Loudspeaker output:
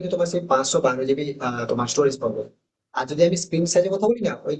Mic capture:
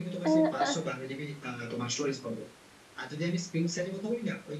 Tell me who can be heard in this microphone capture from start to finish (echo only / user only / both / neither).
both